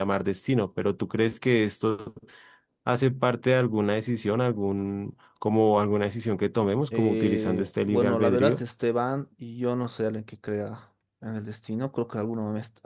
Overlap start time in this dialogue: 6.9 s

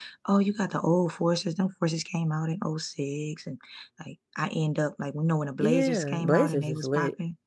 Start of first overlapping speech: 5.6 s

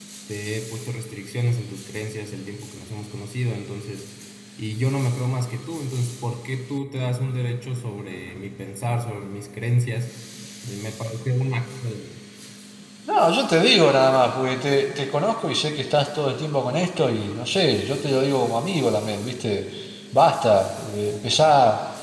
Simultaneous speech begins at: none

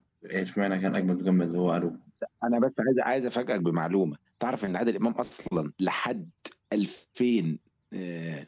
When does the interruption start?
none

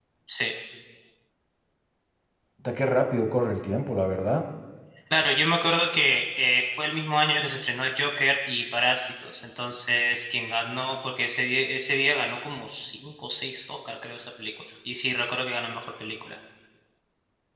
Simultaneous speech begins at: none

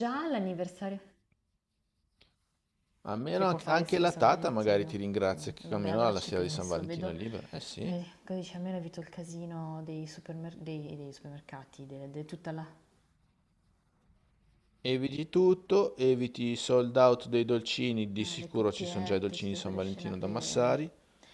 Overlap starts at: 3.4 s

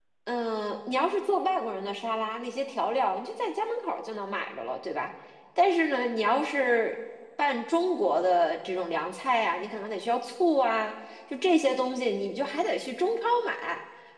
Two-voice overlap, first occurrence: none

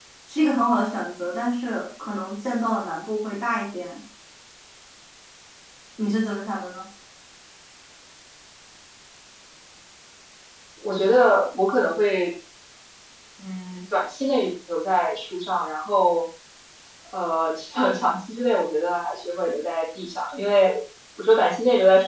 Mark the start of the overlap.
none

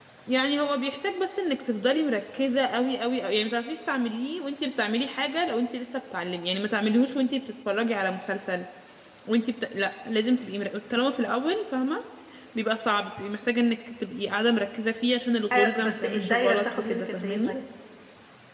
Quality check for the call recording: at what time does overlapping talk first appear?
15.5 s

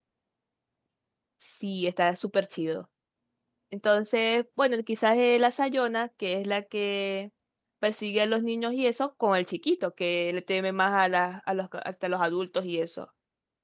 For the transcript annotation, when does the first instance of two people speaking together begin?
none

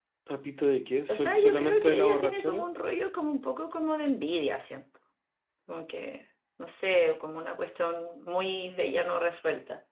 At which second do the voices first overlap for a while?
1.1 s

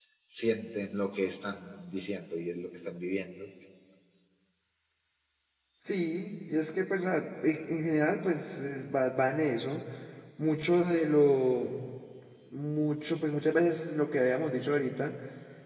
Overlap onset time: none

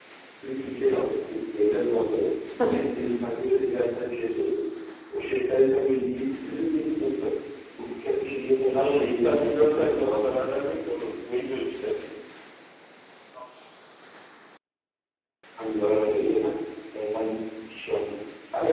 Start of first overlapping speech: 8.7 s

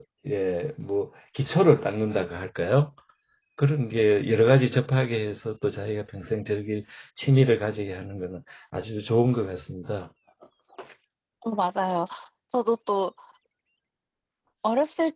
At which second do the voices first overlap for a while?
none

